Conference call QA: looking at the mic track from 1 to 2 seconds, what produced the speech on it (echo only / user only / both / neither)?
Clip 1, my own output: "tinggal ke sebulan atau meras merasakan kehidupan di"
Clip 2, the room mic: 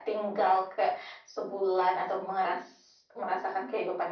echo only